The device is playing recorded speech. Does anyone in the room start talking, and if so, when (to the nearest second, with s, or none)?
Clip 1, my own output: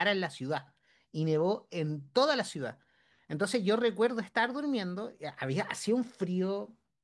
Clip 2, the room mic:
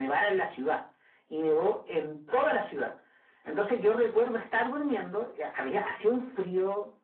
none